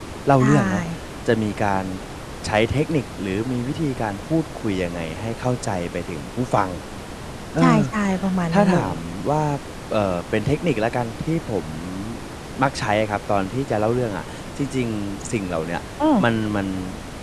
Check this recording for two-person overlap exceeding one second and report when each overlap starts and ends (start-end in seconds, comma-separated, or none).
none